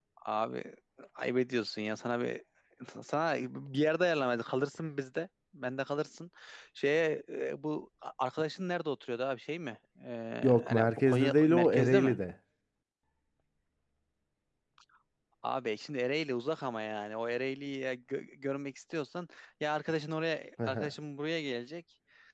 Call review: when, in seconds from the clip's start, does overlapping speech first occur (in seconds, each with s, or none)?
10.7 s